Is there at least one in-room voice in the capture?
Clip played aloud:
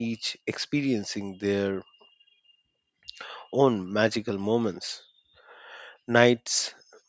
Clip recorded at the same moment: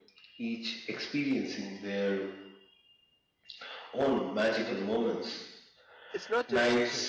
Yes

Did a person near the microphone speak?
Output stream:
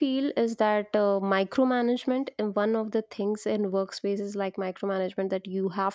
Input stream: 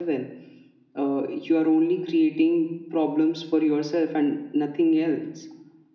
Yes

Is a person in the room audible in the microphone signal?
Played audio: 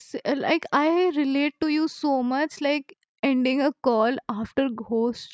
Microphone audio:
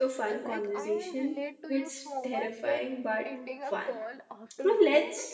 Yes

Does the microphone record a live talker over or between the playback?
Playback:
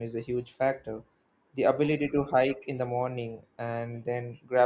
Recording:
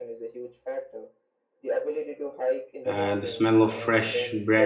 Yes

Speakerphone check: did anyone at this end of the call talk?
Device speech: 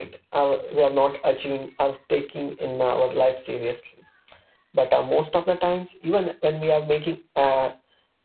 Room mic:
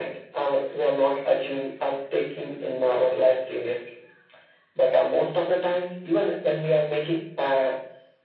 No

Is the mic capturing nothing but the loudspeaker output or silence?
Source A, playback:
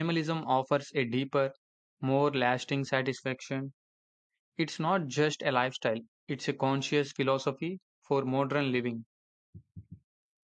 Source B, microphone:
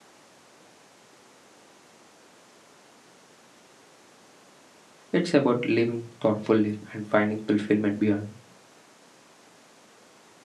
No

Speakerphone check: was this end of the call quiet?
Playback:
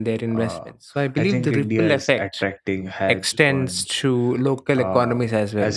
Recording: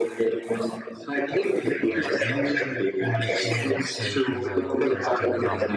No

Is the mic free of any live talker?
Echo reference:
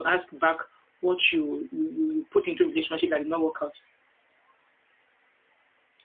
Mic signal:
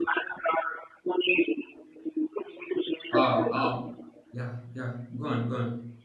No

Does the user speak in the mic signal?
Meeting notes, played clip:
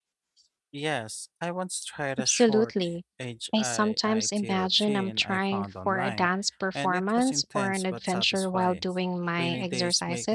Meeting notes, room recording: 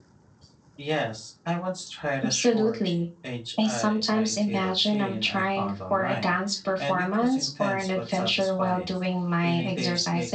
No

